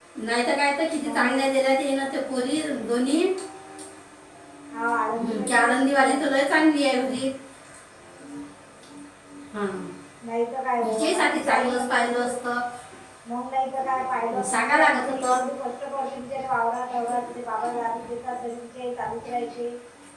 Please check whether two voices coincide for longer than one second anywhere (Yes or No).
Yes